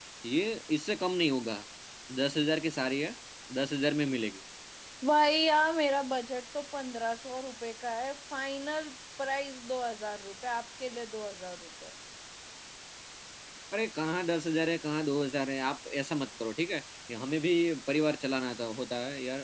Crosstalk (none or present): none